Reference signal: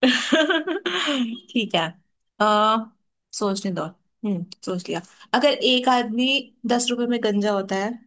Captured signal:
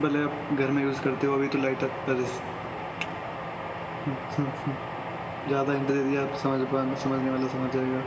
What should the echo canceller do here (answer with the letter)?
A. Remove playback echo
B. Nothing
B